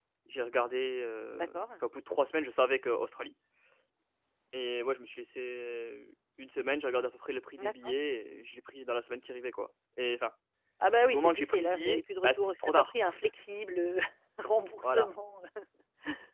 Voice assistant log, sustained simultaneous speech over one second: present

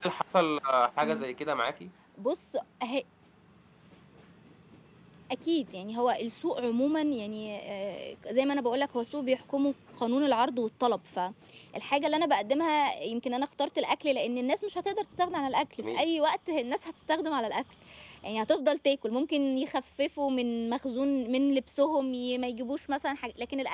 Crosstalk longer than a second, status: none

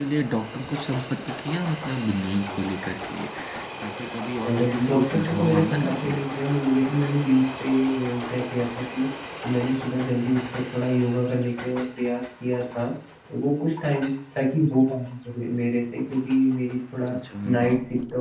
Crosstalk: present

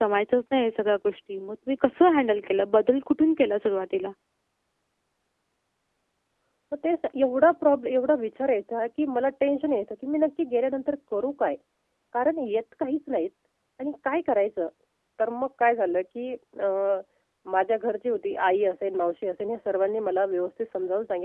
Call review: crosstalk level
none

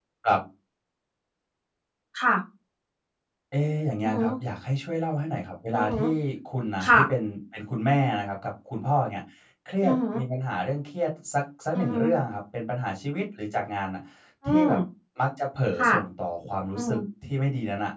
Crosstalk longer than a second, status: none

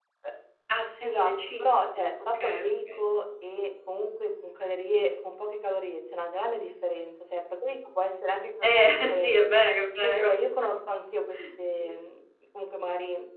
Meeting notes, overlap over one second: present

